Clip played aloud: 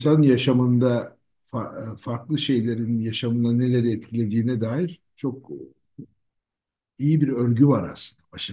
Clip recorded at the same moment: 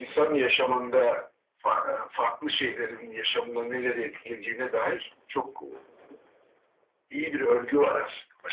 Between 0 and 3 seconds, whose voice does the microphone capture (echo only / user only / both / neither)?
echo only